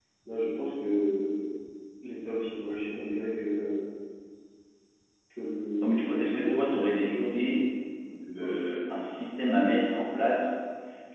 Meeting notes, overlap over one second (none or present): present